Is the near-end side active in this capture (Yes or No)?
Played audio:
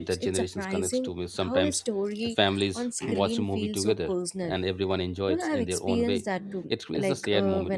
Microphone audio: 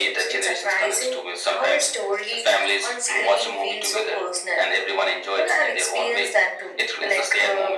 No